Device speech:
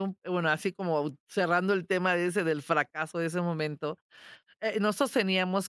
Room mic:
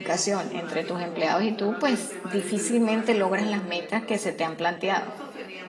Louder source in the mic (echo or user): user